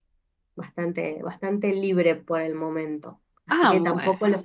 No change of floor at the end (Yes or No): Yes